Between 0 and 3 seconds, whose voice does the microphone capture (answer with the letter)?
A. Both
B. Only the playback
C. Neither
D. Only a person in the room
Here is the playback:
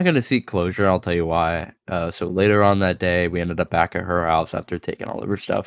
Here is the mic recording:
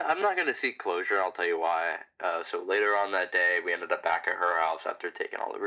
B